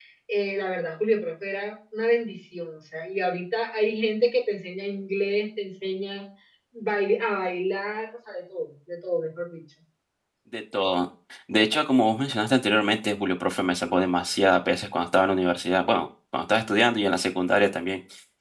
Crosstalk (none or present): none